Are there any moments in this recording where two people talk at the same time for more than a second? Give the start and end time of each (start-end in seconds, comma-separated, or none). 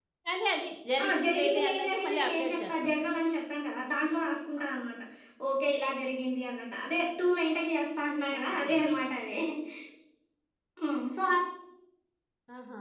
1.0-2.9